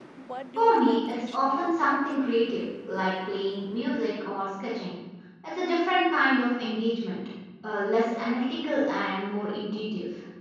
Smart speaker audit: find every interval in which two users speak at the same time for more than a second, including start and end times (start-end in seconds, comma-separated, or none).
0.6-2.6